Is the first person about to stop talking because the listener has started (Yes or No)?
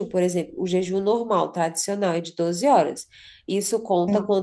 No